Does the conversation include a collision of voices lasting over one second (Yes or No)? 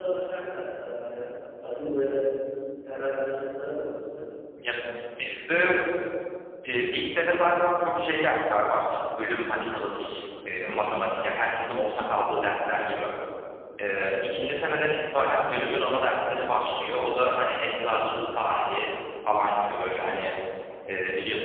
No